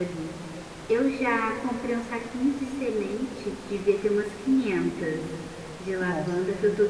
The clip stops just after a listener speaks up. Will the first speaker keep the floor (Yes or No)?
Yes